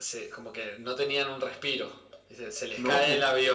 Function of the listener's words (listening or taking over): listening